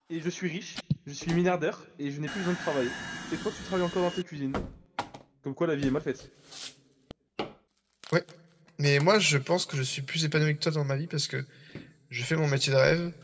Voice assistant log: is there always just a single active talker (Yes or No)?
Yes